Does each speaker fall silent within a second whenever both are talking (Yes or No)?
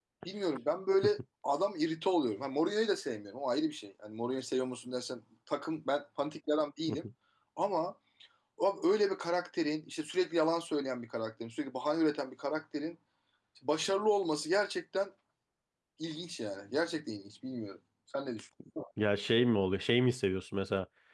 Yes